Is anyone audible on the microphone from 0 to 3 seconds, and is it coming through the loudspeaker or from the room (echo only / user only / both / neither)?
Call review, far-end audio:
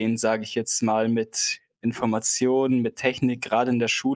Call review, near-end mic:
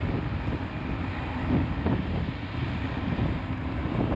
neither